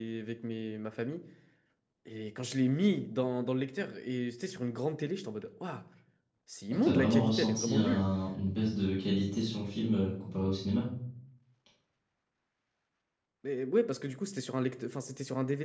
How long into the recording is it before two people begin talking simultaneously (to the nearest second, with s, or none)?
7 s